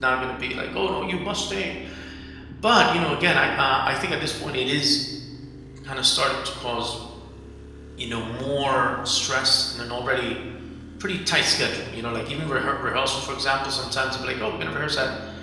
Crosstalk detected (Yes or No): No